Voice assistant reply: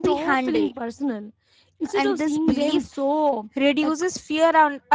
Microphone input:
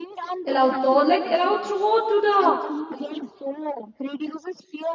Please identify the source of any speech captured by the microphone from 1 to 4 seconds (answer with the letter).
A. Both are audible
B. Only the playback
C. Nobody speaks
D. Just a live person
A